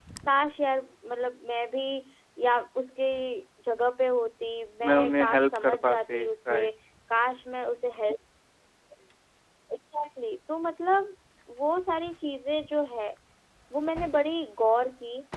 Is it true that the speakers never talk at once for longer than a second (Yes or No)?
No